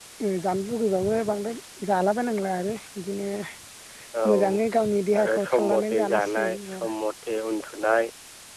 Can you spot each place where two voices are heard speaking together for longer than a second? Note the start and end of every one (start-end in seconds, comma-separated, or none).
5.2-6.9